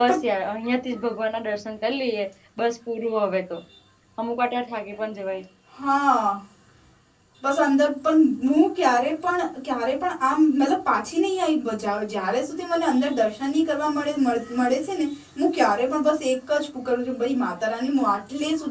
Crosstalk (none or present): none